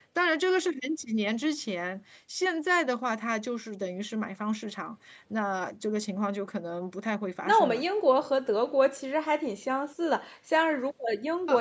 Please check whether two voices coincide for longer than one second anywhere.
No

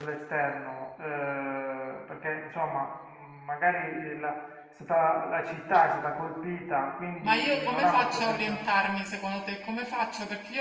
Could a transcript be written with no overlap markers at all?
No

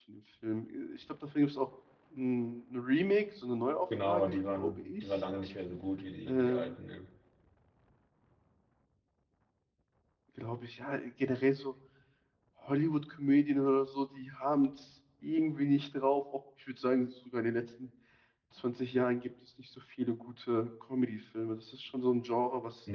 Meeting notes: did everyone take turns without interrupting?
No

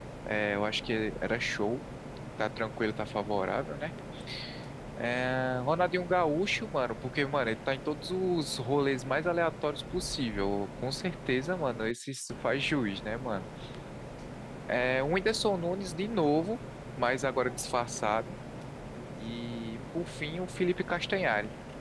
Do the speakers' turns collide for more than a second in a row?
No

